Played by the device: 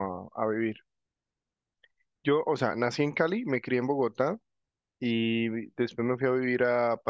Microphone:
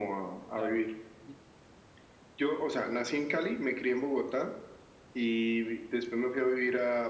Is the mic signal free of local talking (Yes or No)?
No